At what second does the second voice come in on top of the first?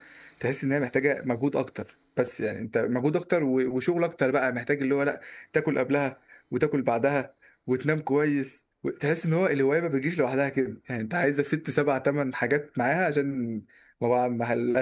none

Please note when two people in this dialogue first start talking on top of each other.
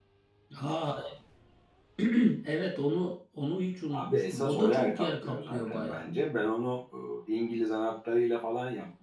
3.9 s

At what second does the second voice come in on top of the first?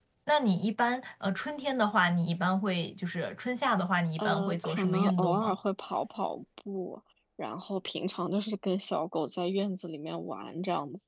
4.2 s

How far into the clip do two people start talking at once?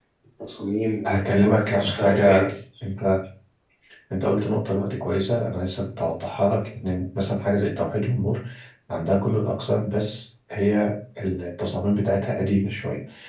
1.1 s

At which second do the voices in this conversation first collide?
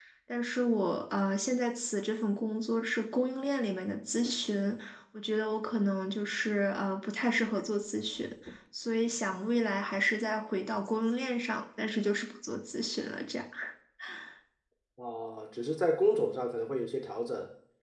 none

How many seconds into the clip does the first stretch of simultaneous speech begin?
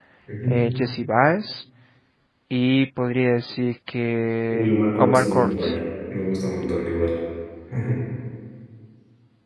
4.5 s

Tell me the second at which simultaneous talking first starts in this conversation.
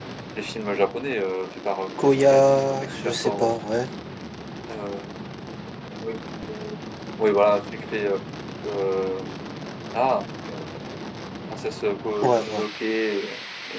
2.0 s

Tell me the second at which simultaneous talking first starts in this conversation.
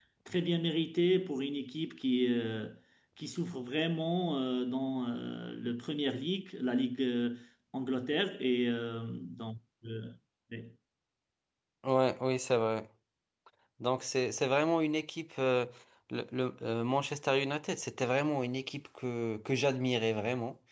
none

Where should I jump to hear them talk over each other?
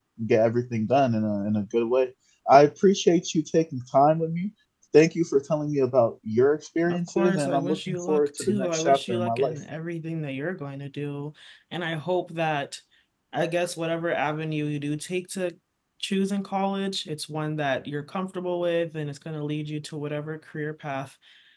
6.9 s

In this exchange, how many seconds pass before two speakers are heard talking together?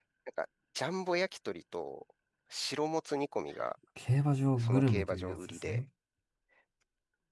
4.6 s

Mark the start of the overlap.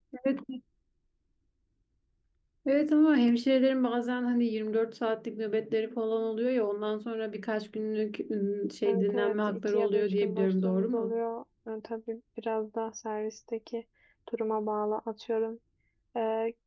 8.8 s

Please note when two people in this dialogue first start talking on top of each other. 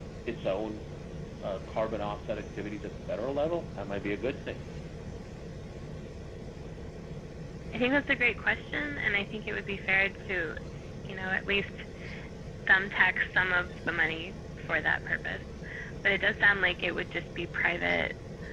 none

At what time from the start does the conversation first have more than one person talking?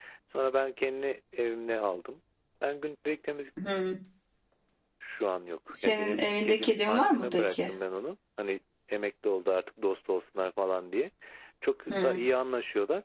5.8 s

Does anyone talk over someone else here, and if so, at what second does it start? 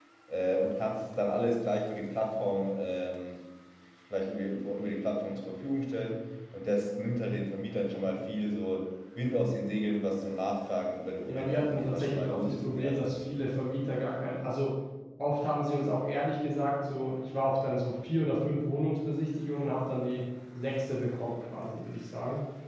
11.3 s

